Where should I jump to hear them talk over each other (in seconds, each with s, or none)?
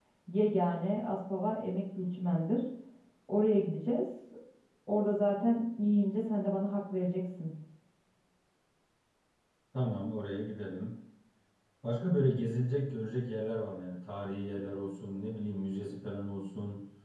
none